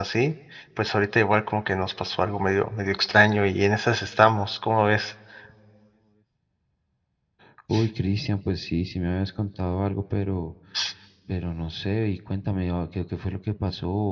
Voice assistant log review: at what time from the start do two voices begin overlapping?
none

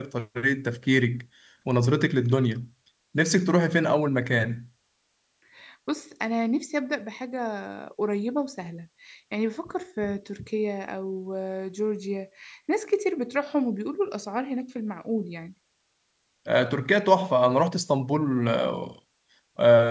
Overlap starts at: none

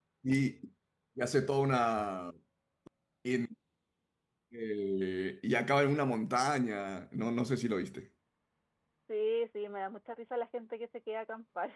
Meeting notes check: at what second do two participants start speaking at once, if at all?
none

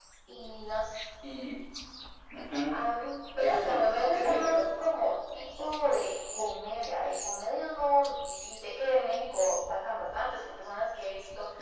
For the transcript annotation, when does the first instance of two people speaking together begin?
3.4 s

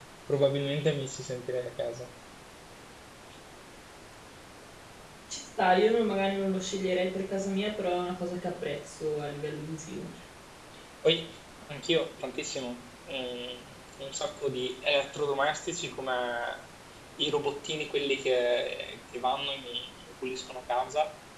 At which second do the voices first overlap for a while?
none

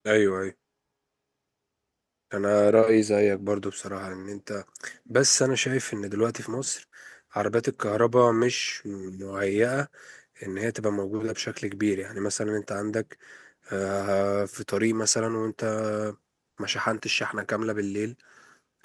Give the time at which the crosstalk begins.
none

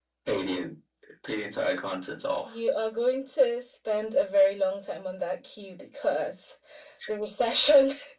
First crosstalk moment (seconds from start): none

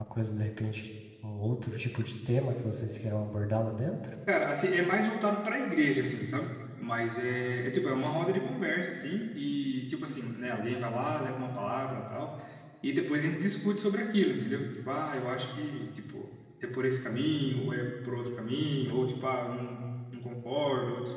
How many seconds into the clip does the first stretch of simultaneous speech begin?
none

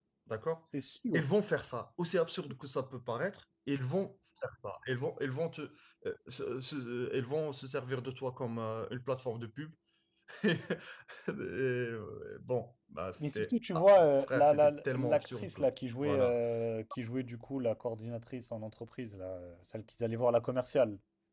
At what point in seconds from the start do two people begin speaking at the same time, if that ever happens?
13.2 s

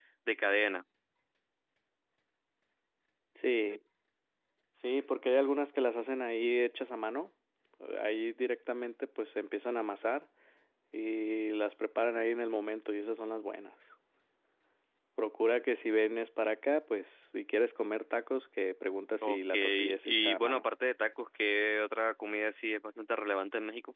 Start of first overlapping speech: 19.2 s

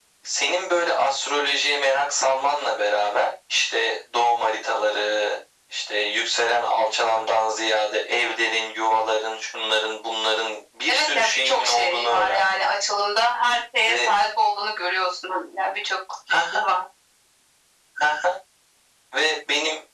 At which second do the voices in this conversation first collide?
10.9 s

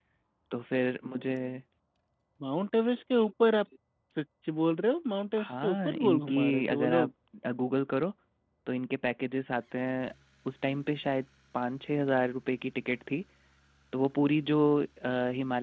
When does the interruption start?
5.4 s

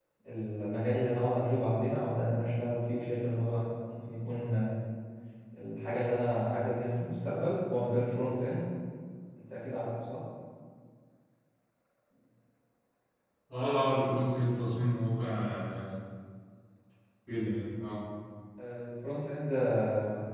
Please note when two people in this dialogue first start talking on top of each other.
none

